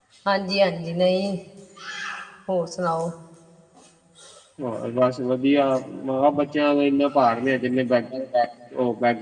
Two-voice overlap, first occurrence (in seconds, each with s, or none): none